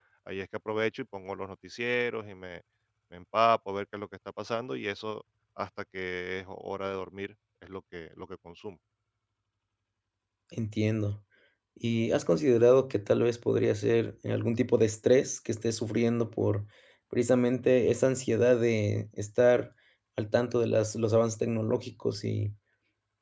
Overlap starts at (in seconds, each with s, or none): none